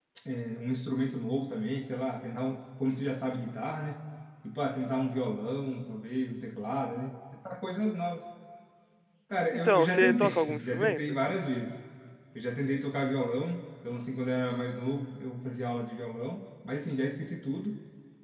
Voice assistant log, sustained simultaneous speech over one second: present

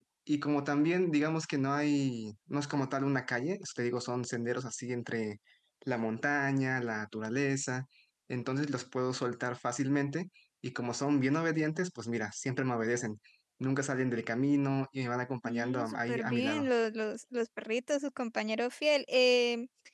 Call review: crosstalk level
present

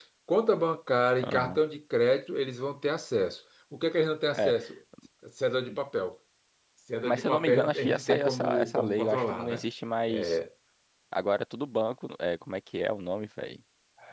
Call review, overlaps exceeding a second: present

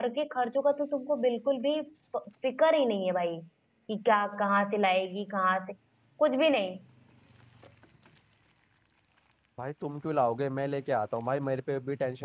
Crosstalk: none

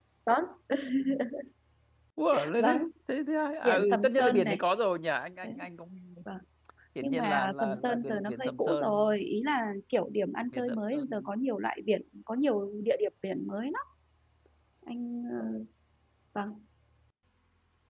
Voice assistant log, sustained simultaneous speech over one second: present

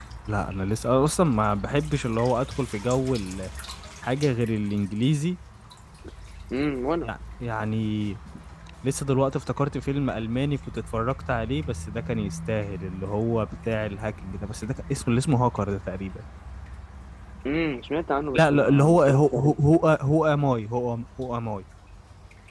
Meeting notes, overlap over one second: present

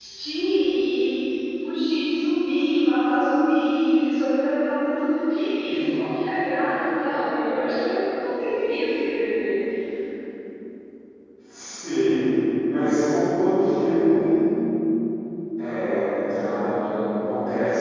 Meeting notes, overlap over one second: none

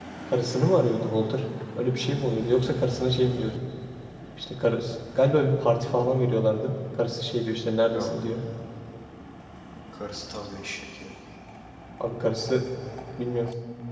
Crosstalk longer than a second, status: none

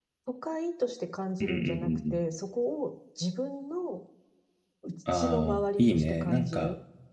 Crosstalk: present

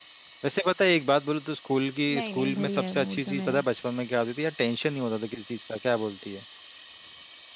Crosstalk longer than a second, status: present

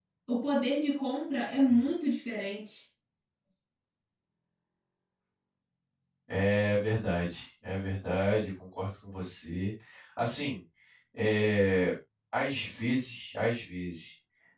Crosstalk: none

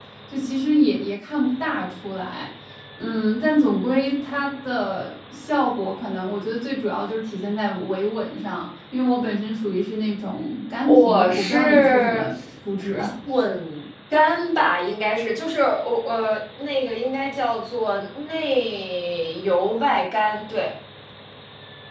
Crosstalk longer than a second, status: present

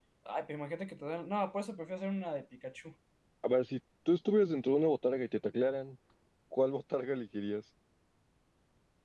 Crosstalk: none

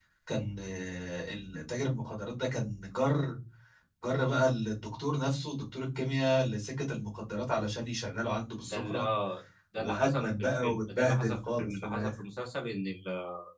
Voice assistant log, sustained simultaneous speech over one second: present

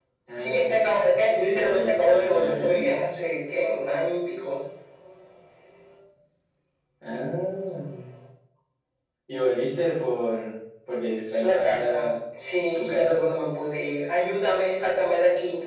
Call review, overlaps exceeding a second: present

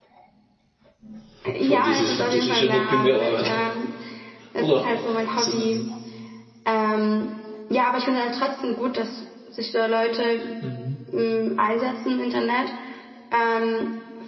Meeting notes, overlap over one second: present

